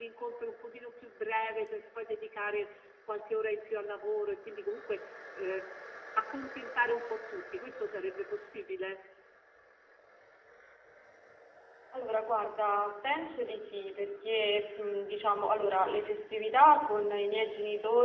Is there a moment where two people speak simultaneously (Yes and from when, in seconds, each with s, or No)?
No